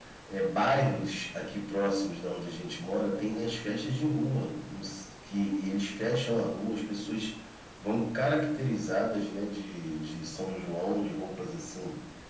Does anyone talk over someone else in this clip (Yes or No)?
No